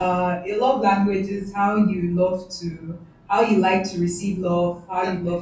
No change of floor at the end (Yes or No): Yes